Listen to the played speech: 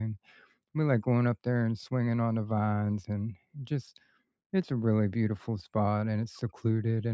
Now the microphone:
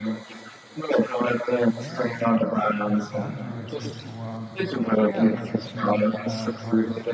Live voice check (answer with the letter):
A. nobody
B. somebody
B